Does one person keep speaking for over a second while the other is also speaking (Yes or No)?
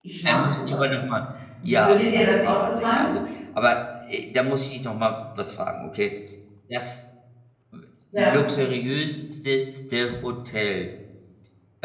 Yes